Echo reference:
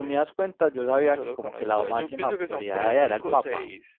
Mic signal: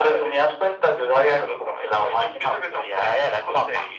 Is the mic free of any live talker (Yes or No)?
Yes